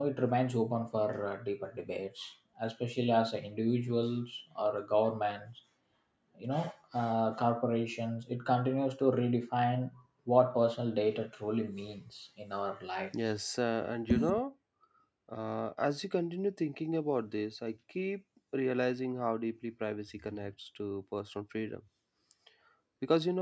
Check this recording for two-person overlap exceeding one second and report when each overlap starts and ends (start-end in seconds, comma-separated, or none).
none